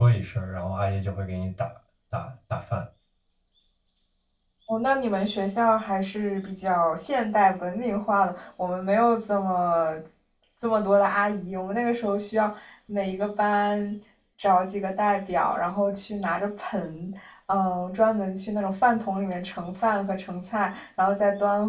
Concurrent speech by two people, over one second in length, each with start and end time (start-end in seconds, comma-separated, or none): none